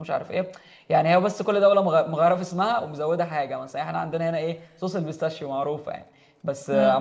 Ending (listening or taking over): listening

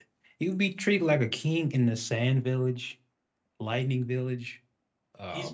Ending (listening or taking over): taking over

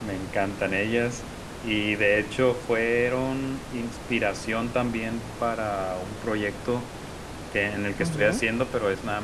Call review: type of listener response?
listening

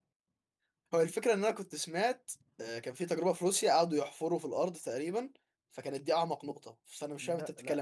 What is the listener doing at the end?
taking over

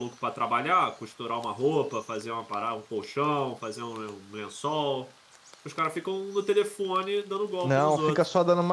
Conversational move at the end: taking over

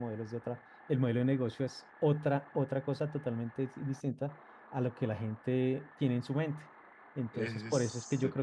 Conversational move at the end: listening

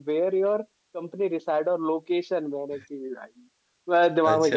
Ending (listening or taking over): listening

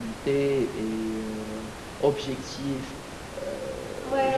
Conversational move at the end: taking over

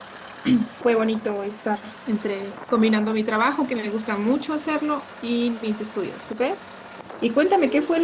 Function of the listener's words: listening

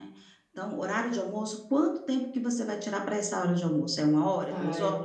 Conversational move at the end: taking over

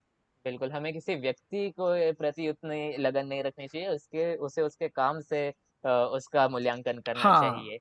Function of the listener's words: taking over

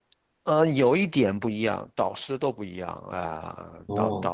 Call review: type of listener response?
taking over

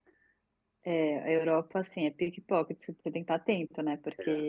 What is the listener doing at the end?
listening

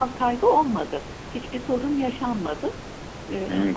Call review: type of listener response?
taking over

